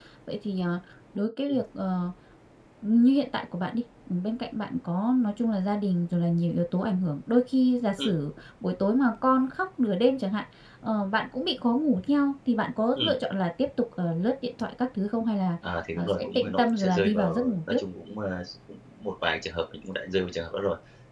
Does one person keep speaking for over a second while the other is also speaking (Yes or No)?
Yes